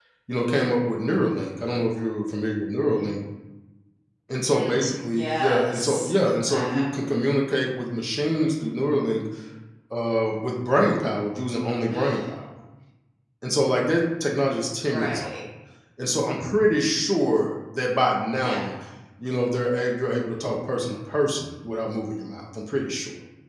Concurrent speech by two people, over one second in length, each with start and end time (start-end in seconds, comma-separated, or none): 4.5-6.1